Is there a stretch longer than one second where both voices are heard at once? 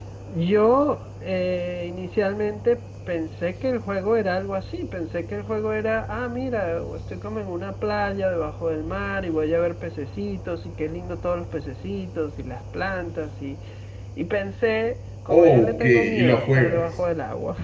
Yes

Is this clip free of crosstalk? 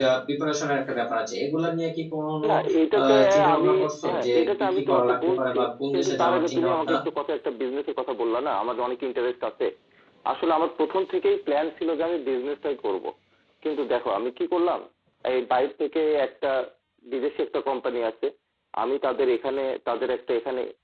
No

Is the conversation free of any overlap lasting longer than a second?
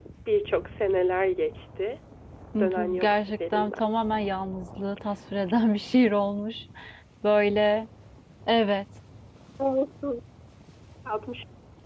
No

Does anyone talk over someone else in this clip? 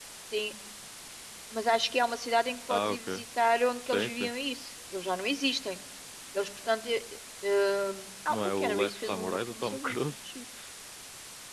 Yes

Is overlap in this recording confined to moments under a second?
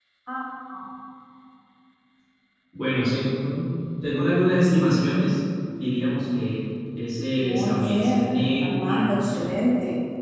No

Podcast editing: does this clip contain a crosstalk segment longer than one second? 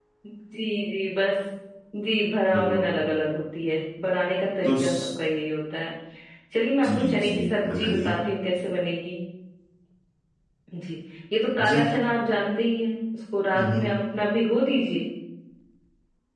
Yes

